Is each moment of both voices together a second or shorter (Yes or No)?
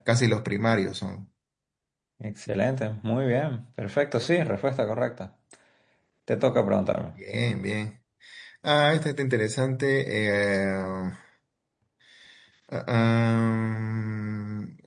Yes